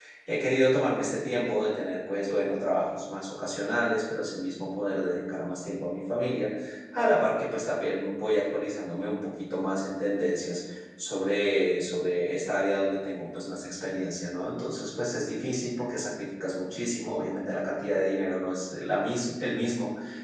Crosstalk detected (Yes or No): No